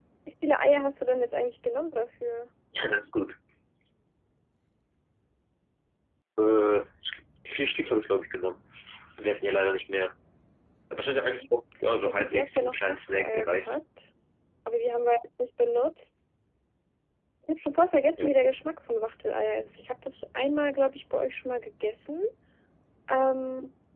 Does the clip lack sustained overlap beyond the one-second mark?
No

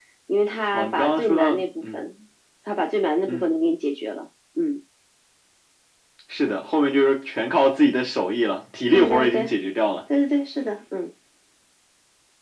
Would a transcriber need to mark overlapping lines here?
Yes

